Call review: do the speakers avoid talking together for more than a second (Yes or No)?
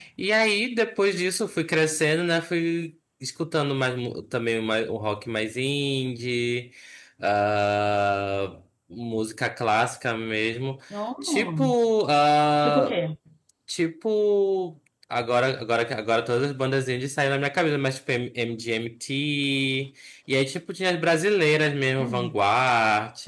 Yes